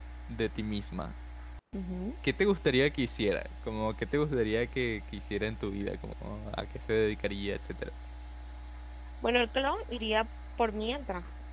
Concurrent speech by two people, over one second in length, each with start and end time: none

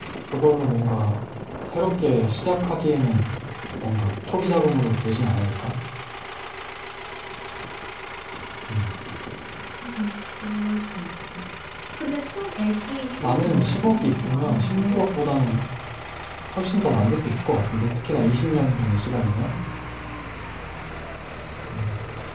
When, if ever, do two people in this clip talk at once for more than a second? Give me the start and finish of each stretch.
13.2-15.1

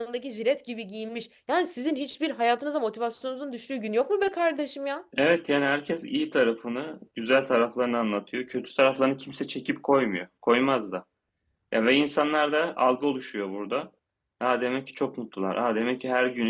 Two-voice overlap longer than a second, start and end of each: none

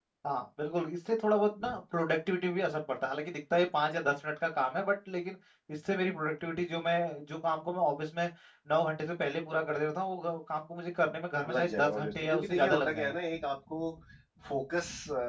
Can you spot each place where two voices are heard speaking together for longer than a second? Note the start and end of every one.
11.5-13.1

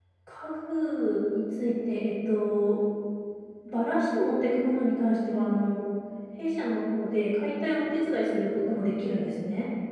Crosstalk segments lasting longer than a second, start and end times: none

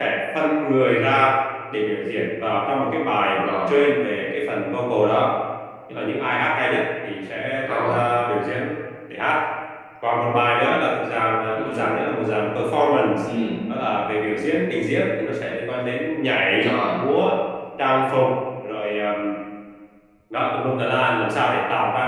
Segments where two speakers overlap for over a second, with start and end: none

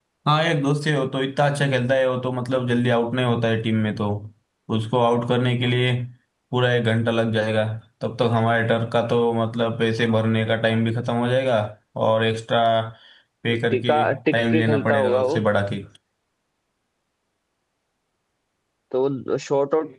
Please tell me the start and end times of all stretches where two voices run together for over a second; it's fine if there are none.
13.7-15.4

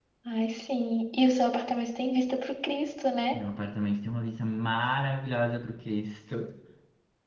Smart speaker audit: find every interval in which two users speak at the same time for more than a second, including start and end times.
none

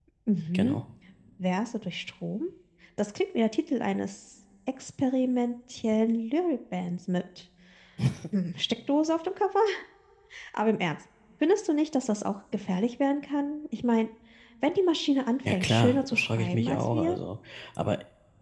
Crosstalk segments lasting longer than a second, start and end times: 15.5-17.2

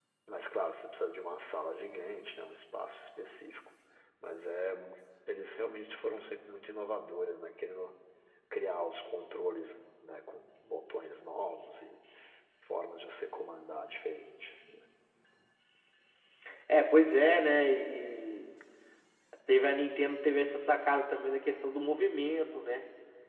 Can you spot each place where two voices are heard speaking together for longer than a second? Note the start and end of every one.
none

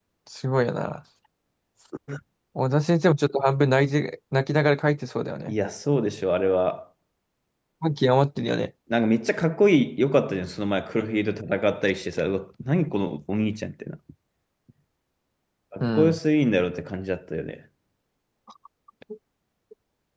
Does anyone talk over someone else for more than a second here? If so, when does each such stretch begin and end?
none

